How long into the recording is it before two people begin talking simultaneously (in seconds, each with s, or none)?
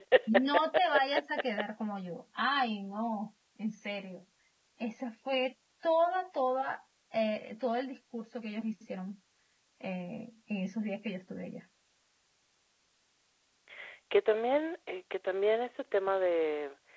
none